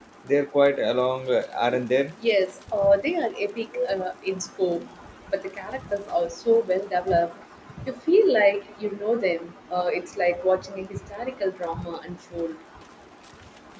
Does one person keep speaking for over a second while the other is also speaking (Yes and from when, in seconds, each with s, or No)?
No